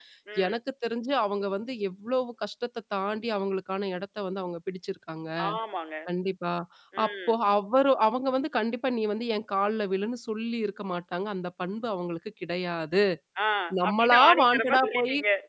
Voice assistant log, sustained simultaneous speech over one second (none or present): present